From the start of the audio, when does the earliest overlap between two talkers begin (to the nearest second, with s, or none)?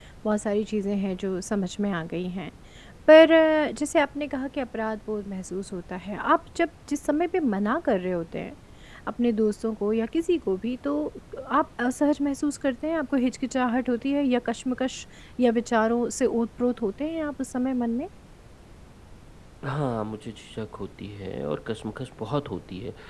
none